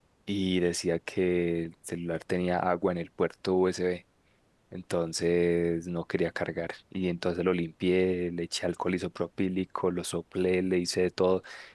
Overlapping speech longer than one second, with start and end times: none

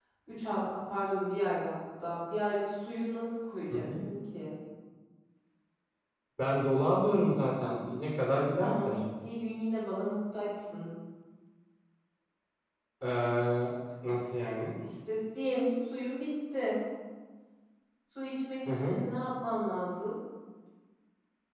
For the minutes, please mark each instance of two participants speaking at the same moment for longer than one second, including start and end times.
none

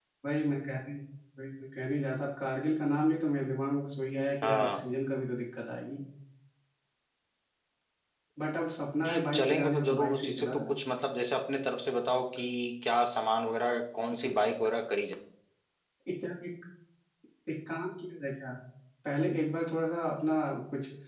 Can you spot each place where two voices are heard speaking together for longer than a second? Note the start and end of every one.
9.0-10.8

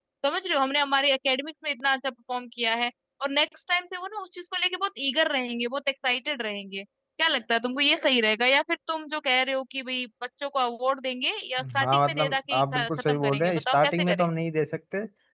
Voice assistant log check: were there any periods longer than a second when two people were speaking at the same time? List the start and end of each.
11.8-14.3

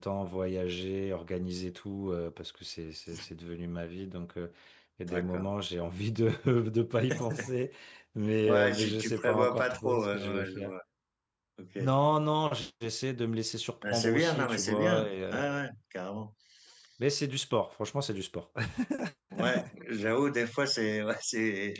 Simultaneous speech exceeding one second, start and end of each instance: 8.4-10.7, 13.9-15.4

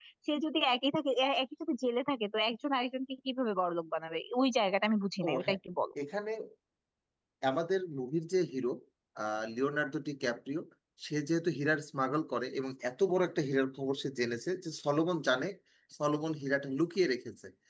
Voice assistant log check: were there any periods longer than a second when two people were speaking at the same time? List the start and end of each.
none

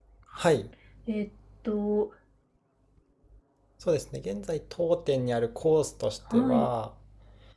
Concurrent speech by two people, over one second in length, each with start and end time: none

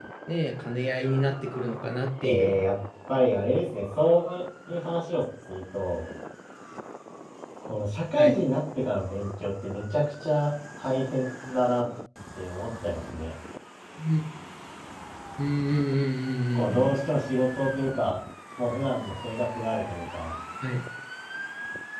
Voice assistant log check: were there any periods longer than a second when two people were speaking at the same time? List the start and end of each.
none

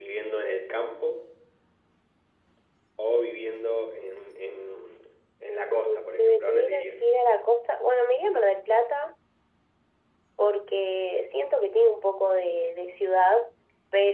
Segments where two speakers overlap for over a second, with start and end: 5.7-6.9

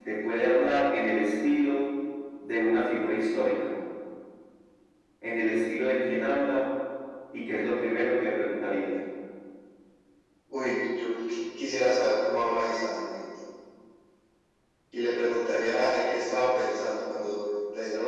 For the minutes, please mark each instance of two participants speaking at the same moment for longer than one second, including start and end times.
none

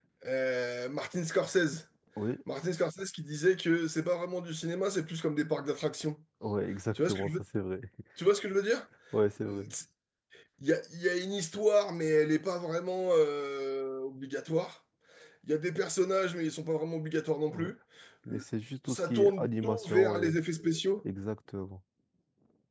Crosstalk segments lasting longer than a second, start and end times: 18.9-20.3

